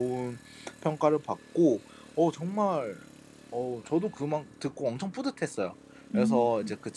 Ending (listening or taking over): listening